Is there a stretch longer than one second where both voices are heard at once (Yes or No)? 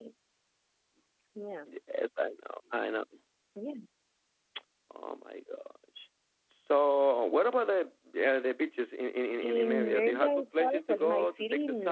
Yes